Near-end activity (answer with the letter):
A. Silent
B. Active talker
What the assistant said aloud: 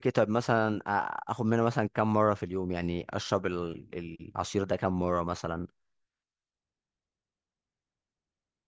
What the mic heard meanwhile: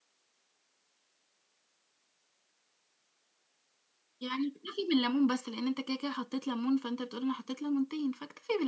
B